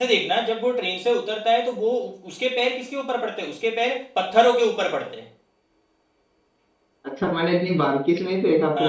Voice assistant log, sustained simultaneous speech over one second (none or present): none